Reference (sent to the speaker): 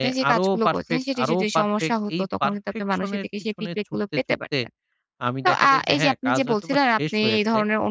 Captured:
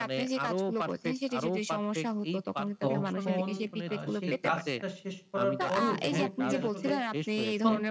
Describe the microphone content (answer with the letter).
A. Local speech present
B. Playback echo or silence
A